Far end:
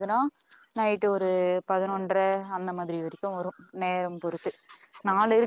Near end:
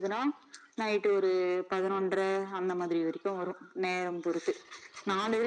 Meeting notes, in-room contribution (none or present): none